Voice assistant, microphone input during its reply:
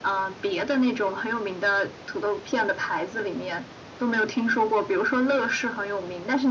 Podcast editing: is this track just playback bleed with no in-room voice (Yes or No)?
Yes